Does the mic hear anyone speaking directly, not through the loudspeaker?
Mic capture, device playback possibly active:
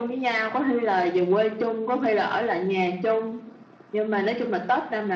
No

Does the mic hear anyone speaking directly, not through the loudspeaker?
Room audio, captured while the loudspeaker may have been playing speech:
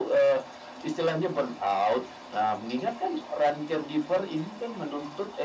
No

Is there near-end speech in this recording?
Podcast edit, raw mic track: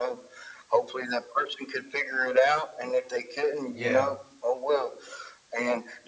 Yes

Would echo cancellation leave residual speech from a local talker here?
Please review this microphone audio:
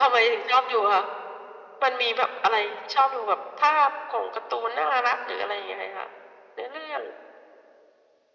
No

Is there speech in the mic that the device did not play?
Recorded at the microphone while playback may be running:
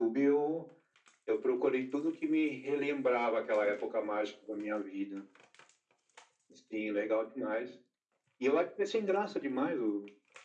No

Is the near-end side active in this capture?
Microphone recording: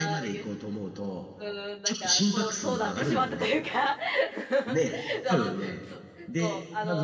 Yes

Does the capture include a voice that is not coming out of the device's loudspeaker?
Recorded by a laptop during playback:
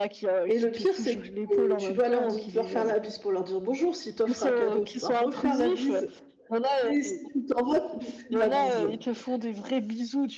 Yes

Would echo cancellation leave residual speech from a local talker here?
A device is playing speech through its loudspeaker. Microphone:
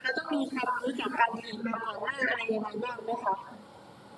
No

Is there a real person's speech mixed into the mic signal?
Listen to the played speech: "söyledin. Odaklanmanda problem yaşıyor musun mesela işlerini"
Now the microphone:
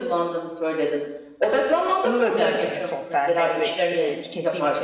Yes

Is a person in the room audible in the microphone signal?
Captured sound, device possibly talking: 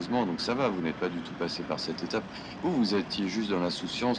No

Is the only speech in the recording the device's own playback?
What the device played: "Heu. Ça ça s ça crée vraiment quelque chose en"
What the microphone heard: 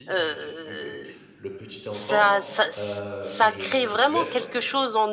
No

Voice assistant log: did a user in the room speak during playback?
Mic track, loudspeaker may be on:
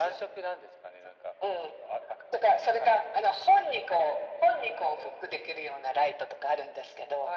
No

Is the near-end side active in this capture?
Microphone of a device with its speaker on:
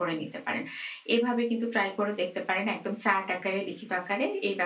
Yes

